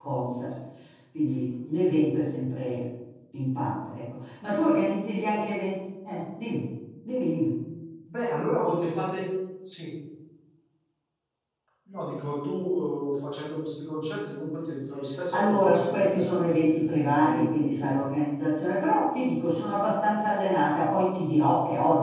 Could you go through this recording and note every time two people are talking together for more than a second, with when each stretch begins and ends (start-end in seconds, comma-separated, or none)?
15.3-18.0